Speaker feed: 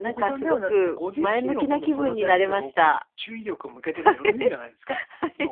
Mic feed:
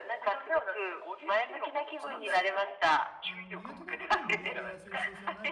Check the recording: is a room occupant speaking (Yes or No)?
Yes